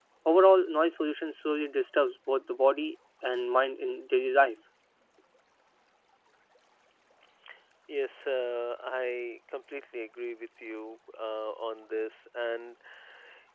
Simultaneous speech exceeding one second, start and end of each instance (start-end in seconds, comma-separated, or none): none